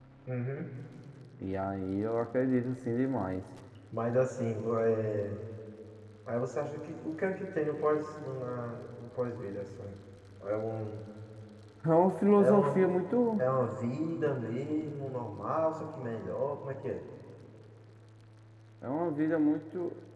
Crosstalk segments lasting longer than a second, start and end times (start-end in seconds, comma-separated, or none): none